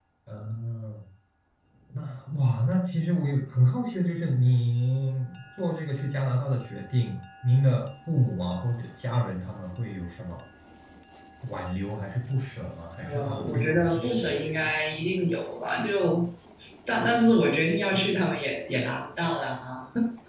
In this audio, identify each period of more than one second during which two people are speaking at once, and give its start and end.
13.0-14.6

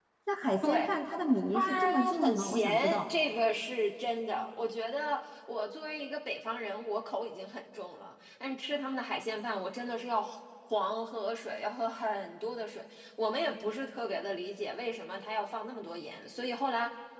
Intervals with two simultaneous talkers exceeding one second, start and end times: 1.5-3.1

